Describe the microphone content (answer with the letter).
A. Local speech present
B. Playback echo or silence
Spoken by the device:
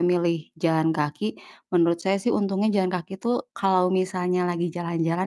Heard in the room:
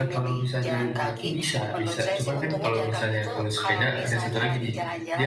A